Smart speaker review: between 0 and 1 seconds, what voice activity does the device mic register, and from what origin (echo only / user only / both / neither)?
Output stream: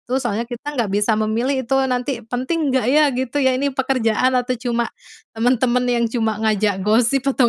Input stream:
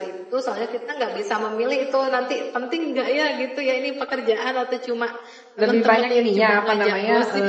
echo only